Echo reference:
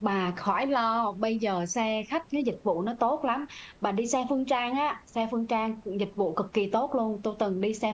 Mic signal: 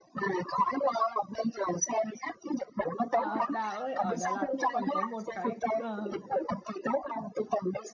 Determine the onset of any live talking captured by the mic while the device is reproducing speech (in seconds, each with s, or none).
3.1 s